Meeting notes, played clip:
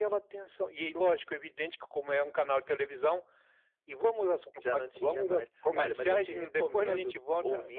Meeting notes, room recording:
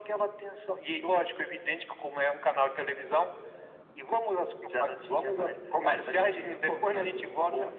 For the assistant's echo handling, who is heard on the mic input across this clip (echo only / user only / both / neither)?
echo only